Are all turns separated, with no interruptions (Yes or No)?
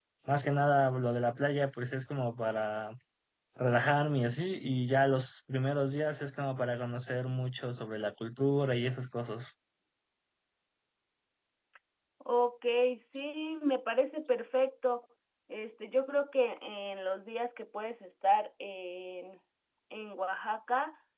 Yes